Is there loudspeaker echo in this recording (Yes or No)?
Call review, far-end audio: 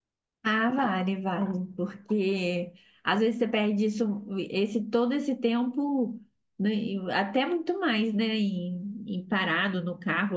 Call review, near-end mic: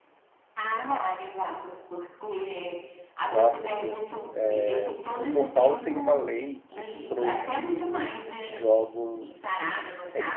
Yes